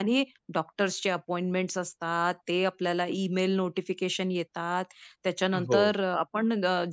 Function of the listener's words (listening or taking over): listening